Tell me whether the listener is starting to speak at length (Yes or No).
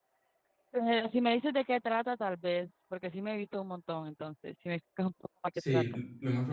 Yes